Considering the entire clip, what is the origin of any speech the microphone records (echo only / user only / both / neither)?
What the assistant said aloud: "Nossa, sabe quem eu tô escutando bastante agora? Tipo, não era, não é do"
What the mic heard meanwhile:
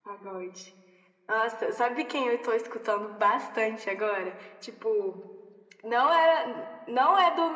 echo only